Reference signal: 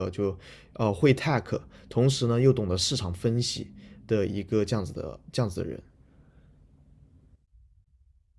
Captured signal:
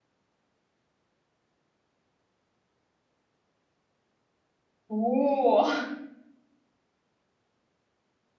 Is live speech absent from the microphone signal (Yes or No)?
No